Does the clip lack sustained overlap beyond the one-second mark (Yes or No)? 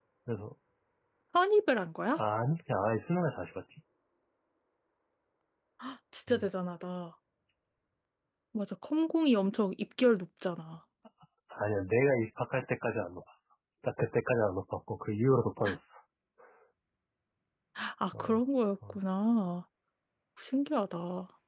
Yes